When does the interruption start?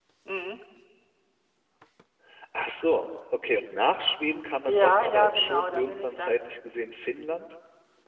4.7 s

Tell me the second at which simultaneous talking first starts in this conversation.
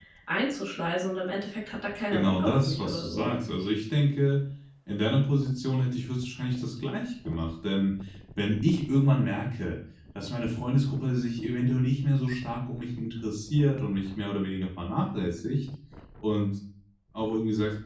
2.1 s

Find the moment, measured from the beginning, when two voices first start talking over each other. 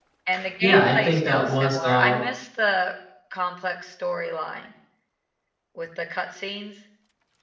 0.6 s

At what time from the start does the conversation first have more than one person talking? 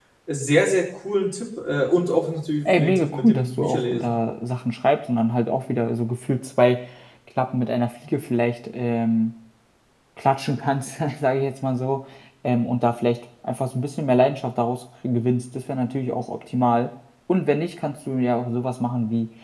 2.6 s

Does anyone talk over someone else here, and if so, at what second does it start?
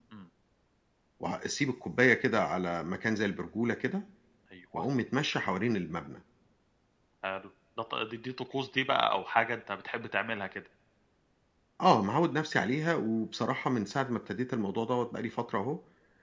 none

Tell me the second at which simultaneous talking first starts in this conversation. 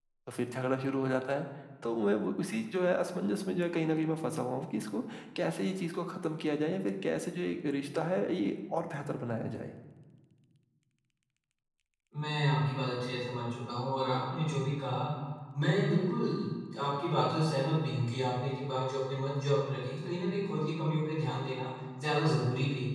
none

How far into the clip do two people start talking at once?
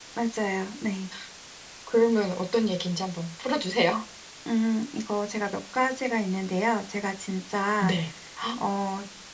none

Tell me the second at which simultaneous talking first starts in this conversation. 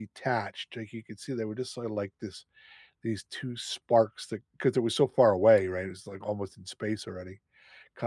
none

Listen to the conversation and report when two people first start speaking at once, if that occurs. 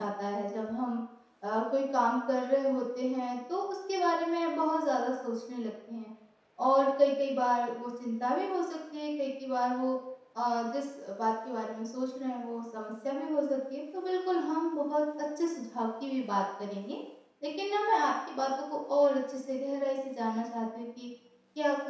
none

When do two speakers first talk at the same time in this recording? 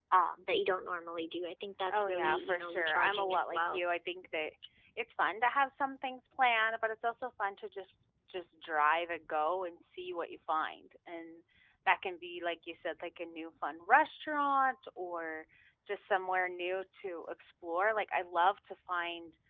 1.9 s

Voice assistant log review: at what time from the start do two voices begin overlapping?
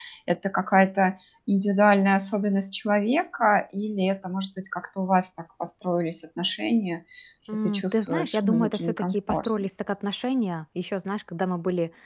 7.5 s

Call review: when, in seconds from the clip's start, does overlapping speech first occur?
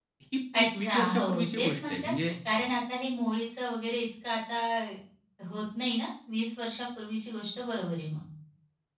0.5 s

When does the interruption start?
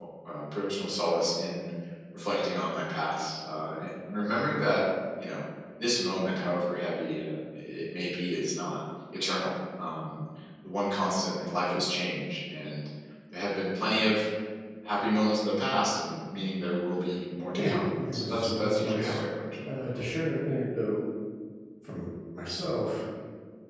17.6 s

